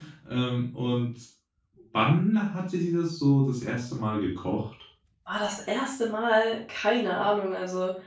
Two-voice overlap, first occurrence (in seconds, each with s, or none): none